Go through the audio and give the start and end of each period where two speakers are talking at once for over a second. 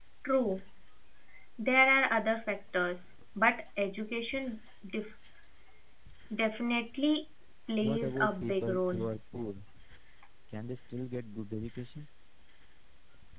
7.8-9.1

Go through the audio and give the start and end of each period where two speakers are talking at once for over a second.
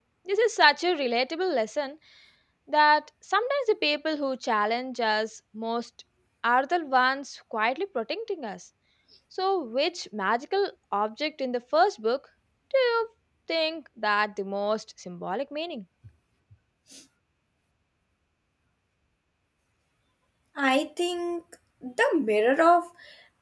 none

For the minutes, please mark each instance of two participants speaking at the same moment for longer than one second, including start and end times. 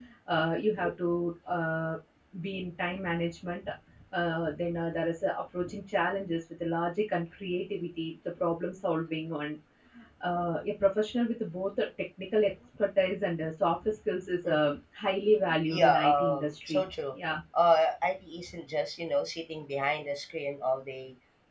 15.7-17.1

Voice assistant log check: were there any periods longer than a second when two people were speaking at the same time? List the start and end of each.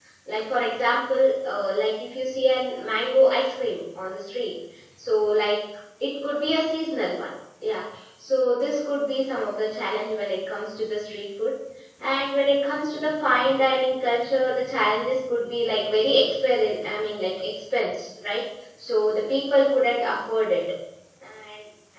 none

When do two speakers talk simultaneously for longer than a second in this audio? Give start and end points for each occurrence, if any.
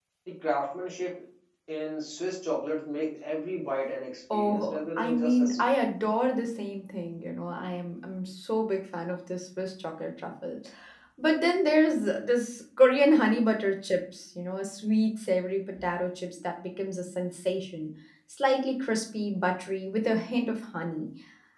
4.3-5.8

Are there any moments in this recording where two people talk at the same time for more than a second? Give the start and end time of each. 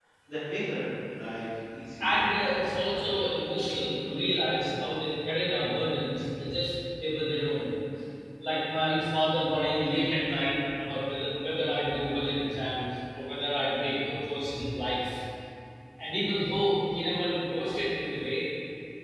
2.0-3.3

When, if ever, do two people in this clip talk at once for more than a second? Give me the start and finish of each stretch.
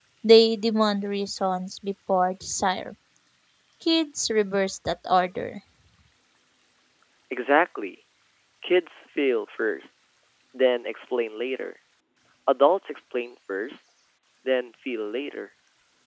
none

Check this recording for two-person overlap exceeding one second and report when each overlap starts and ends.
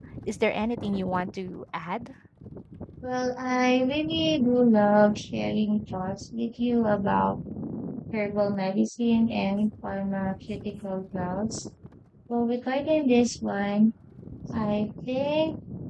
none

